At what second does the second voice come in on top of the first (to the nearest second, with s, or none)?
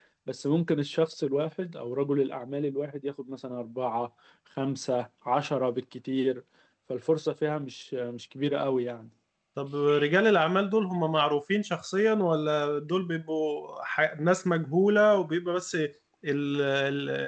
none